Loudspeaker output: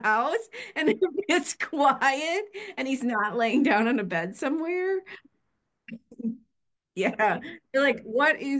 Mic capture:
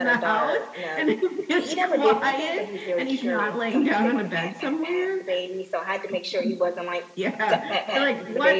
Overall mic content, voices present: both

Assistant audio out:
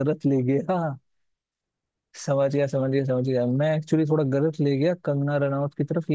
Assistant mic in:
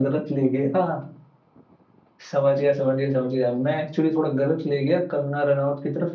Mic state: echo only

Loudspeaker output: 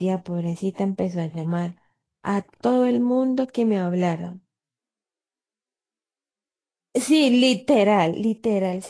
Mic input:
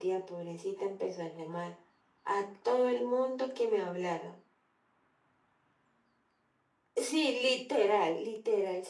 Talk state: echo only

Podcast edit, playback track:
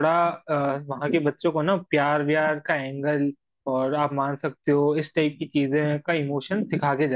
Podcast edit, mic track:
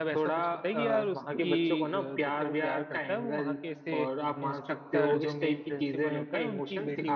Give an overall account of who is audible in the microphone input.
both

